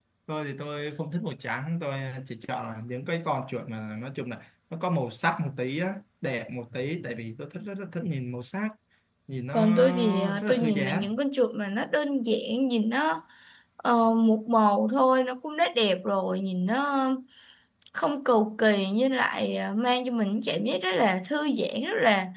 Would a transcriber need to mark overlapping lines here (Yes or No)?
Yes